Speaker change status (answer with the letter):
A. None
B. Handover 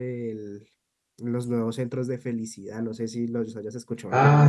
B